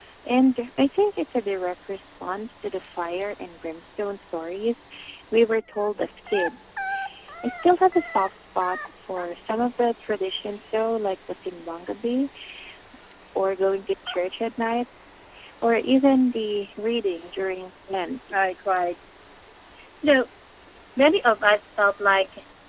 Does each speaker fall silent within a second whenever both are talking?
Yes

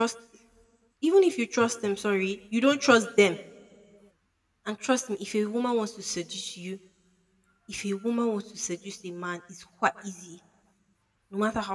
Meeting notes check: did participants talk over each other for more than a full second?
No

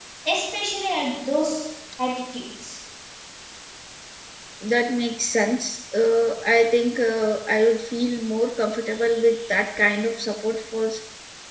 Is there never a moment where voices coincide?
Yes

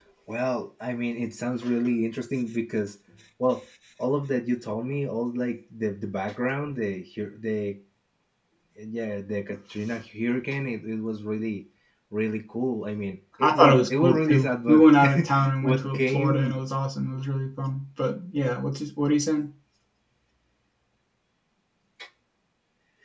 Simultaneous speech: Yes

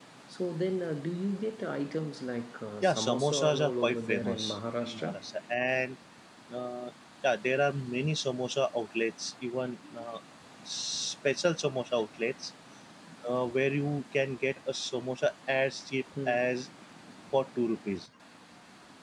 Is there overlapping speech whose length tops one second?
Yes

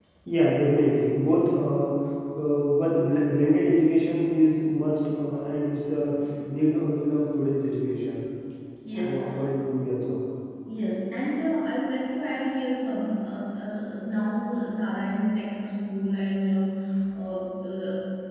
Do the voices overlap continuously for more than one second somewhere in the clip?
No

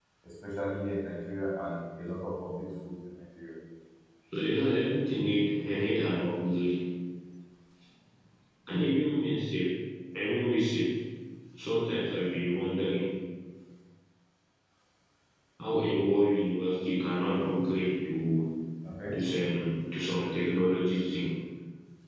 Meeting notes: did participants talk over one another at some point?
No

